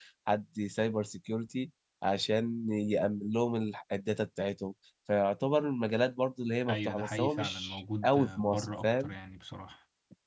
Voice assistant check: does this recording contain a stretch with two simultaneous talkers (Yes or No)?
Yes